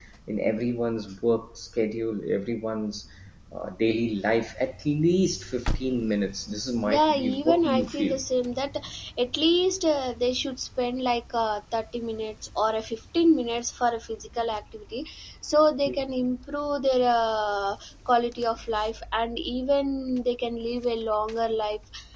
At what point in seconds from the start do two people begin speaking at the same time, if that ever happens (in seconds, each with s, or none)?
6.8 s